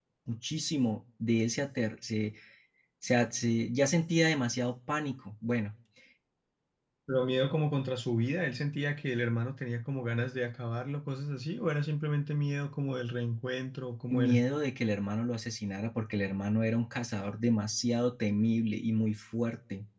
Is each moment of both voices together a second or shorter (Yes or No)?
Yes